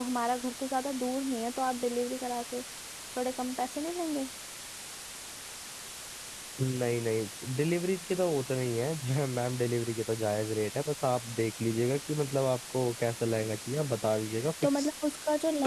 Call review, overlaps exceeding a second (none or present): none